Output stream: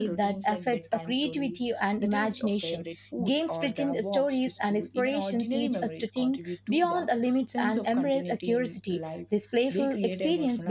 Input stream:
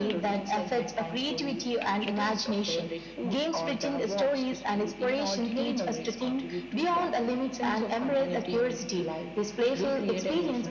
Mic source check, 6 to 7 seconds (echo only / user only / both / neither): echo only